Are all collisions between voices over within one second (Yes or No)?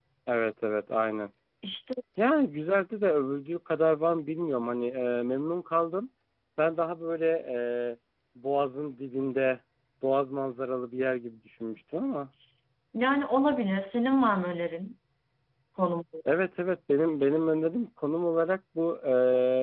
Yes